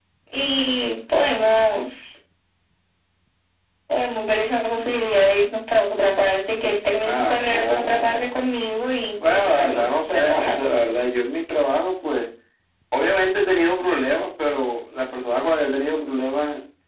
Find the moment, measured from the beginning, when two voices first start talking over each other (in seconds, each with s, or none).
7.0 s